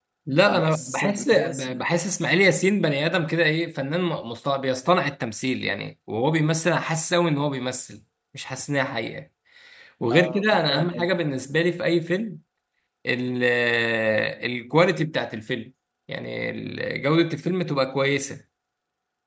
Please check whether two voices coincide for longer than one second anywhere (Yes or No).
Yes